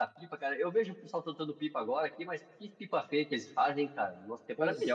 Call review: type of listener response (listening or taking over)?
taking over